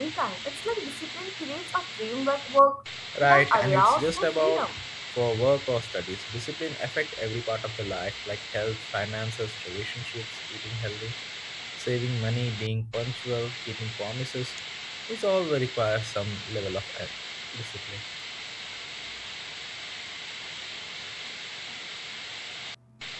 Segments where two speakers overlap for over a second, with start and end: 3.2-4.7

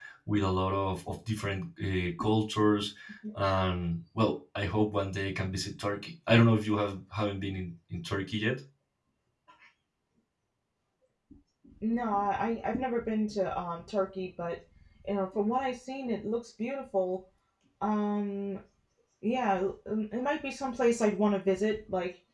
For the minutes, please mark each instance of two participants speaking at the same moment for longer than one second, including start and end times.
none

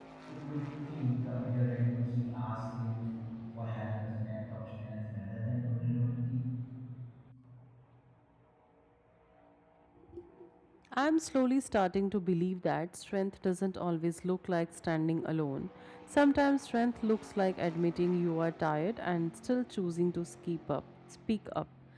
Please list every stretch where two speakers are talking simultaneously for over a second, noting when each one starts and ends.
none

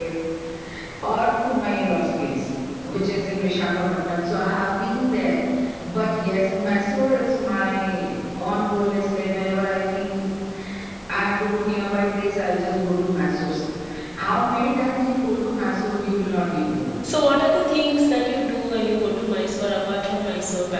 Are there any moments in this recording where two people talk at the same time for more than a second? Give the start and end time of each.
none

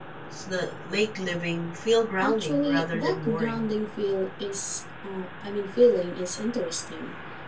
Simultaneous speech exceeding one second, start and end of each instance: 2.2-3.7

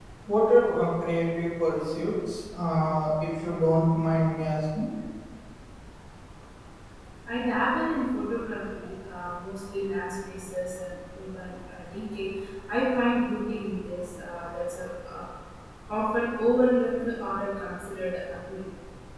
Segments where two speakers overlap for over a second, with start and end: none

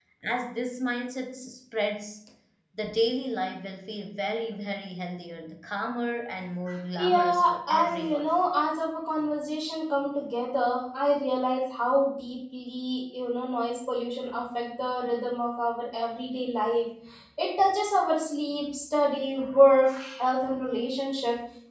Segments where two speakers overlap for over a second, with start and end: 7.0-8.3

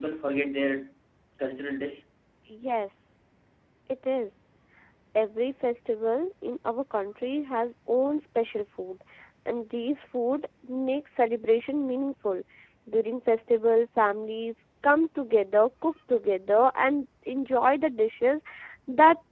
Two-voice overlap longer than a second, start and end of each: none

